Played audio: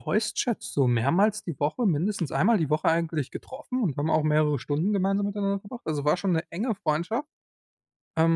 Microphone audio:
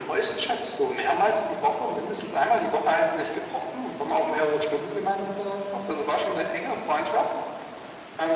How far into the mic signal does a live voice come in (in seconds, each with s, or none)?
none